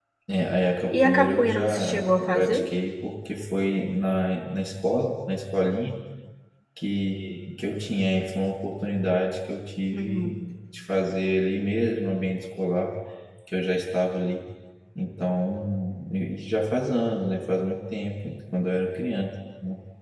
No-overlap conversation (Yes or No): No